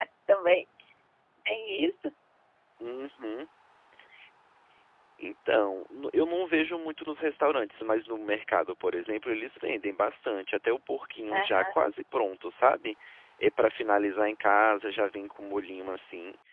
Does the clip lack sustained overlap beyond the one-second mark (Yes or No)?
Yes